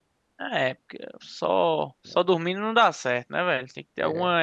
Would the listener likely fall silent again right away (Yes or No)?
Yes